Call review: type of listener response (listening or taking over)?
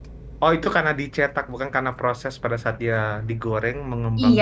taking over